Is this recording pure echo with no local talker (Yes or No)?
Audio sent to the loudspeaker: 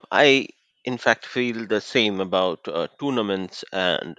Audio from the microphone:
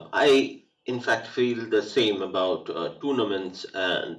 Yes